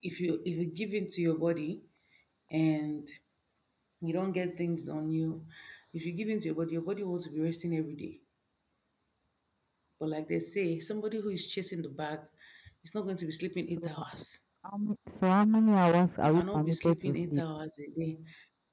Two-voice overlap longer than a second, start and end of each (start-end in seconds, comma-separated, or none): 16.2-17.4